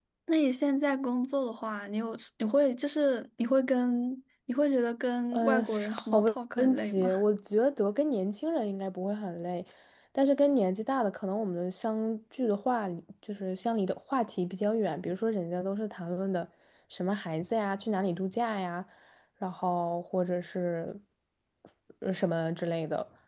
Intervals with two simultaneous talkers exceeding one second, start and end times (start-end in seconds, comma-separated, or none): 5.3-7.1